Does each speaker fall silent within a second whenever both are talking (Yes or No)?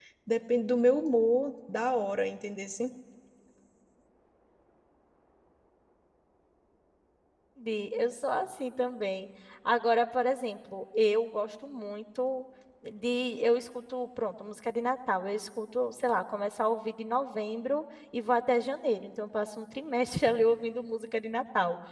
Yes